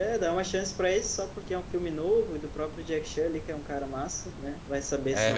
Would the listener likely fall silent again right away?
No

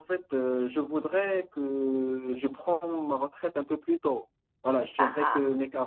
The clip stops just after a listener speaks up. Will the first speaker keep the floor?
Yes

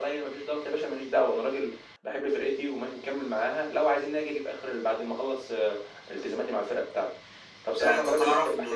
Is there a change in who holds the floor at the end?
Yes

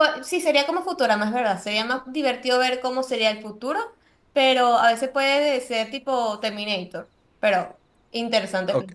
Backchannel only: No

